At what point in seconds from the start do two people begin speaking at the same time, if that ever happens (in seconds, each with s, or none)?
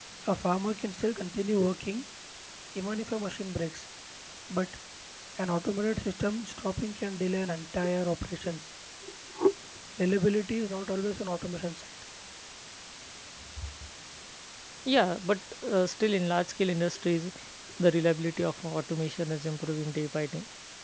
none